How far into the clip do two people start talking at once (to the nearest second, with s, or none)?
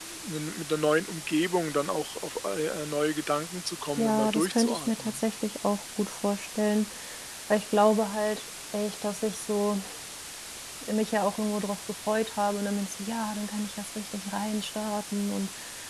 4 s